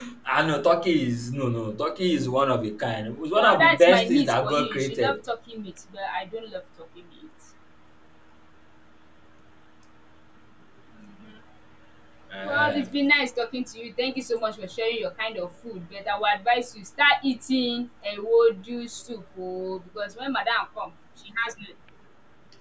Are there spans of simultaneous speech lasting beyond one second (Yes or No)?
Yes